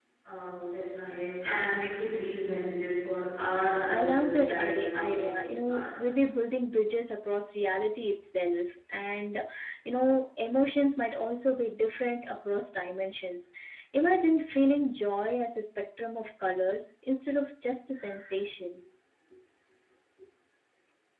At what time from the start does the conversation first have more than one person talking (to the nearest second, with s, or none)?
4 s